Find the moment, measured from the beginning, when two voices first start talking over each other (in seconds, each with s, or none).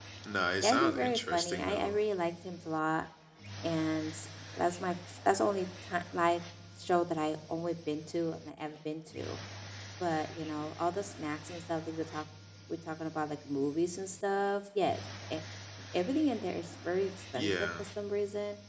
0.6 s